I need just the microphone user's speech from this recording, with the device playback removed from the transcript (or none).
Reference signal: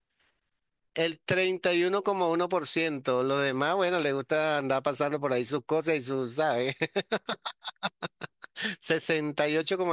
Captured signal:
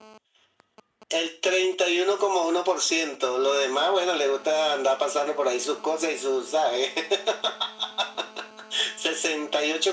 none